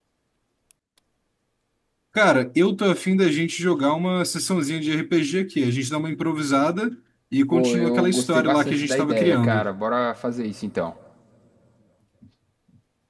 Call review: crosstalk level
present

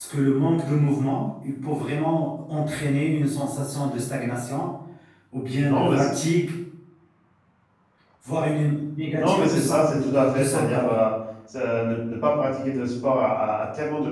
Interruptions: present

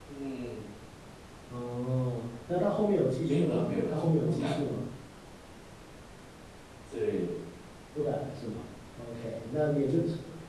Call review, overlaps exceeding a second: present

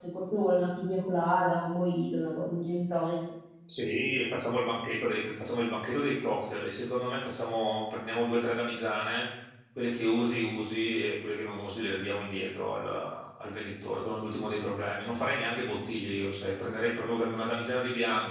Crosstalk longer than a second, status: none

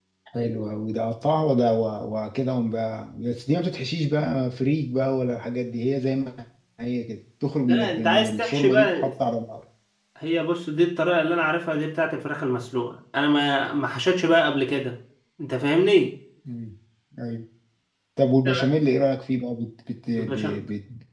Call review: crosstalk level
present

